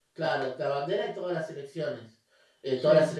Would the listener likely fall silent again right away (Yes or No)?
Yes